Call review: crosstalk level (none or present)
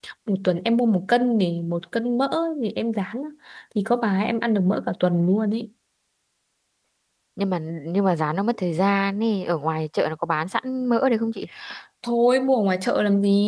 none